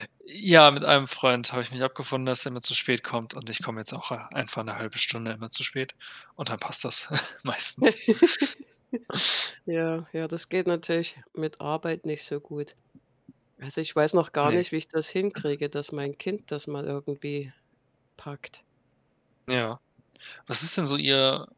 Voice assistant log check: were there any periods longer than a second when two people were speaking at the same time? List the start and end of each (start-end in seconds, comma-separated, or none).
none